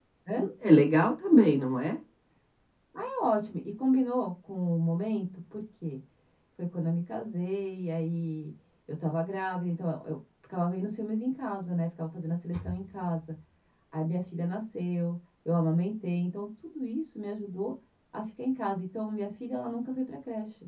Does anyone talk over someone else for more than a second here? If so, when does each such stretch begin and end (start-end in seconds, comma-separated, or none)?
none